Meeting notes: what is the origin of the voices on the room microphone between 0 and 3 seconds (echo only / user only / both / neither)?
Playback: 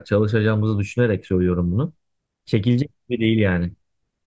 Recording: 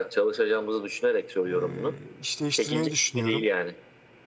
both